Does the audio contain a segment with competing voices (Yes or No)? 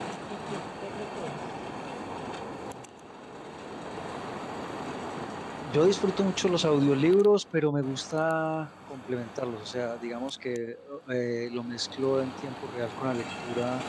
No